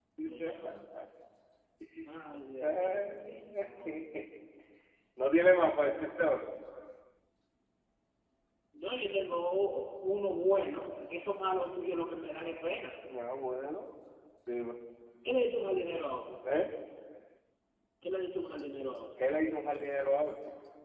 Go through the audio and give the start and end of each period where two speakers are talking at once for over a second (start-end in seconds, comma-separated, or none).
2.6-4.0